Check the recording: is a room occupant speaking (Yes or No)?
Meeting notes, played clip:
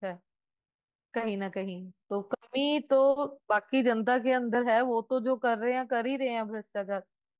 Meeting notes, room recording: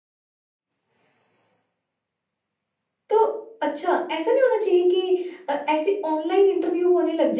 Yes